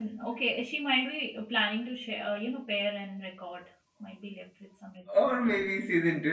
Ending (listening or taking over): taking over